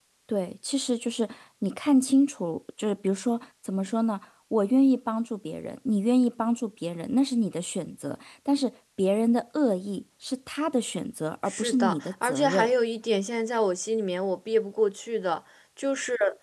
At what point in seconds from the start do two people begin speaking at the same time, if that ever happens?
11.5 s

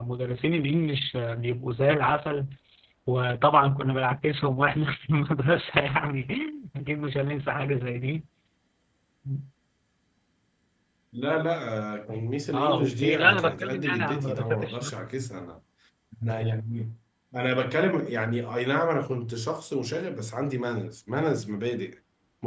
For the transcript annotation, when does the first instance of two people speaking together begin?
12.5 s

